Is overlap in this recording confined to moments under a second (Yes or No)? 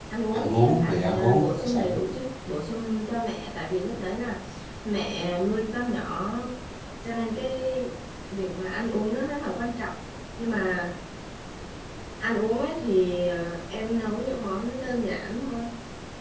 No